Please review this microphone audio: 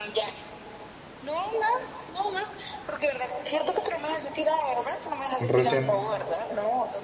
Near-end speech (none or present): present